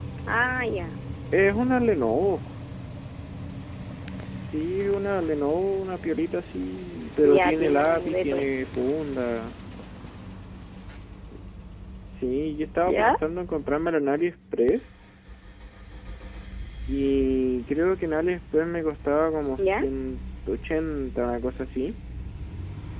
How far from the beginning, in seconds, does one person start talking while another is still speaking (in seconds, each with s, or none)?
7.2 s